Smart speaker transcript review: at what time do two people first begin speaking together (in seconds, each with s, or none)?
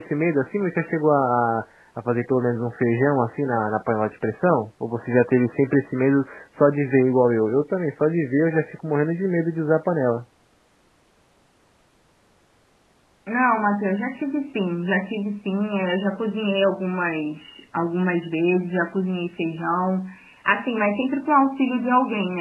none